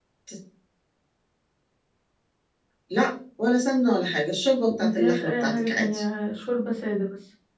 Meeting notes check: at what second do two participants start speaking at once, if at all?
4.8 s

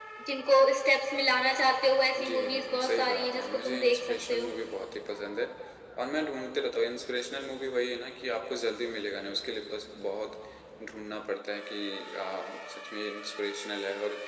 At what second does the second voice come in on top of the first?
2.2 s

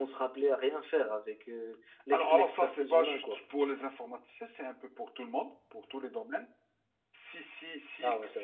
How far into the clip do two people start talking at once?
2.1 s

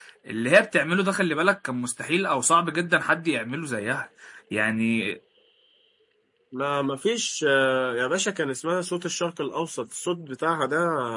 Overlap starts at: none

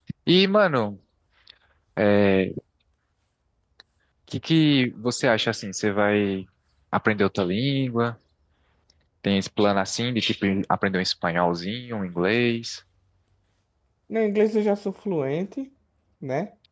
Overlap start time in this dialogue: none

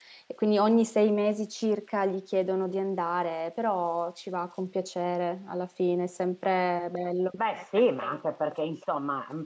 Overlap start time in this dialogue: none

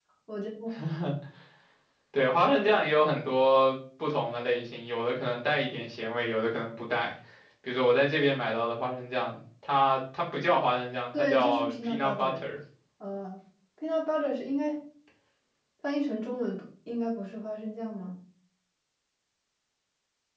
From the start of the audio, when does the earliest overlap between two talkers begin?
11.1 s

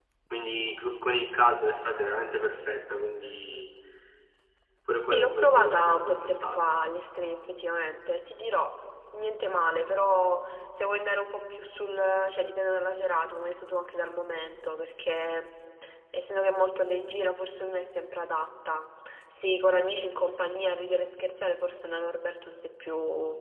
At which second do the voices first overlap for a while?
5.1 s

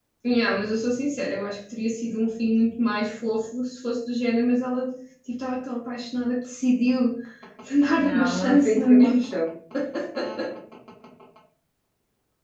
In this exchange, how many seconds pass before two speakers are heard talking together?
8.0 s

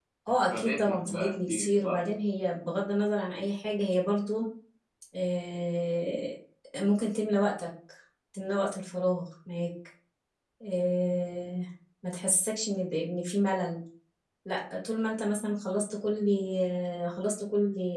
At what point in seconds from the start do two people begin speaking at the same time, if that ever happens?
0.5 s

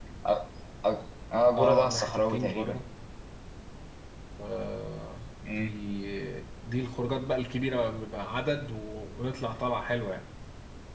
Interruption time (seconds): 1.5 s

